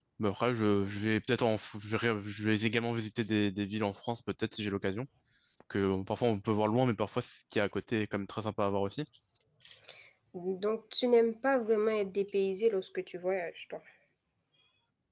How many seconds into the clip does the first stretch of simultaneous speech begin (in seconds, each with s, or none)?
none